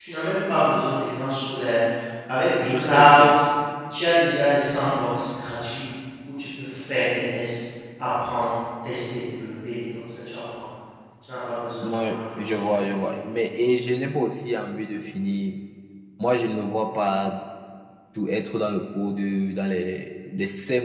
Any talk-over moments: Yes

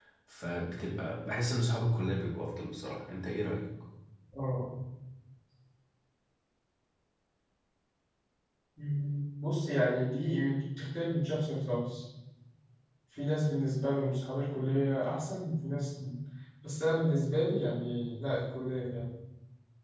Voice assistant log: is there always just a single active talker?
Yes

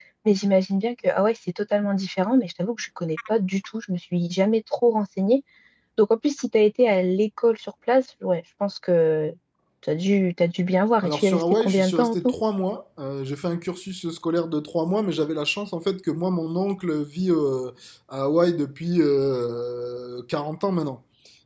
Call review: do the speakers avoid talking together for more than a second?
No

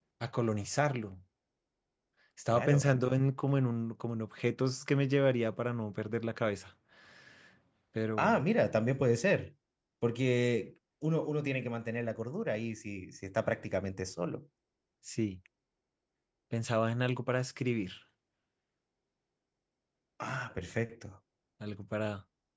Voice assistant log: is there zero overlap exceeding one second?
Yes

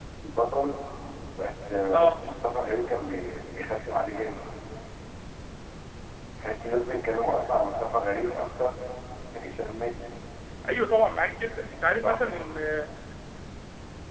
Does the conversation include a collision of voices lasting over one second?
No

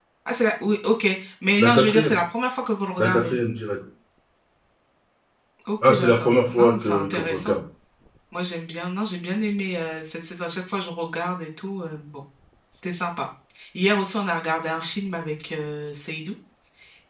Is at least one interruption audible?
Yes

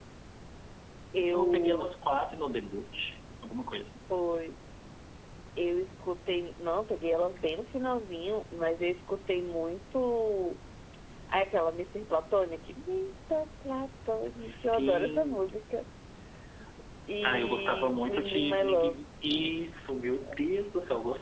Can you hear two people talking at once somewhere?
Yes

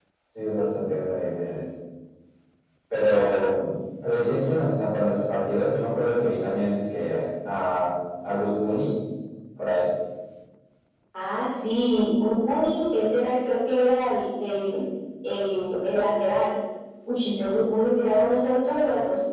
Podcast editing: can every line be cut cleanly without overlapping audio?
Yes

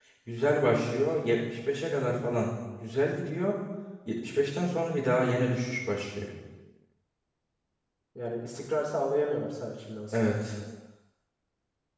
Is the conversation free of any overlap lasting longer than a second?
Yes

